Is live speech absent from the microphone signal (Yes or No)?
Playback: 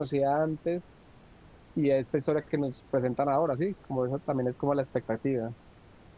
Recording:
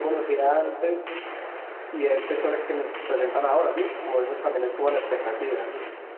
Yes